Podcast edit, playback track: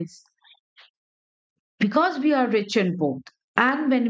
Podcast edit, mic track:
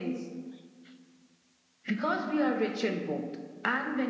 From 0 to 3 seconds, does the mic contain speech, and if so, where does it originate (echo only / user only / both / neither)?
echo only